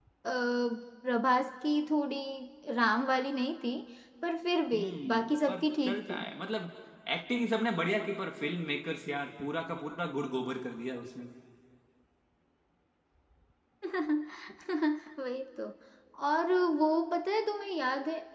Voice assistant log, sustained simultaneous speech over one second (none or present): present